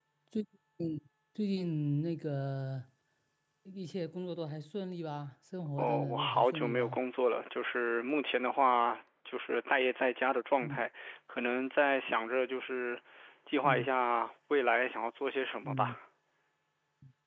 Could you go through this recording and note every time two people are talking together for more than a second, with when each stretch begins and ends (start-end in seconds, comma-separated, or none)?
5.8-7.0